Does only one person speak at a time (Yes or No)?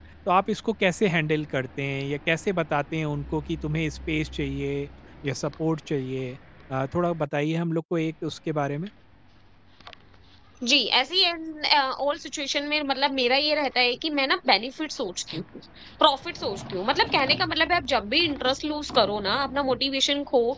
Yes